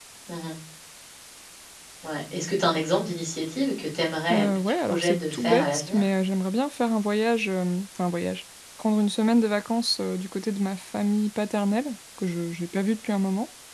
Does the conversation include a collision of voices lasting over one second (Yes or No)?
Yes